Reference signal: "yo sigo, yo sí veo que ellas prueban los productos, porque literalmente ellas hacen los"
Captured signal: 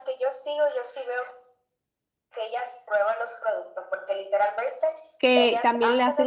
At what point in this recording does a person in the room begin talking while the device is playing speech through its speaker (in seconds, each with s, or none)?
5.2 s